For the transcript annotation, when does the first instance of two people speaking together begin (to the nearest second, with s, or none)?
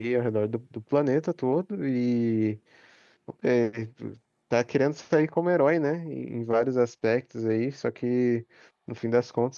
none